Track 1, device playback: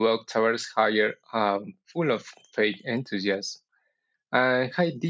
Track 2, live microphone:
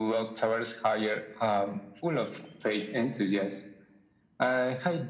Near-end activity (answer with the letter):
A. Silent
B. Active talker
A